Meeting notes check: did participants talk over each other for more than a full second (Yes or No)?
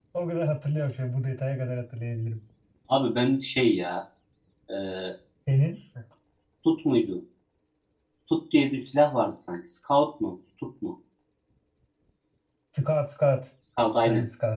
No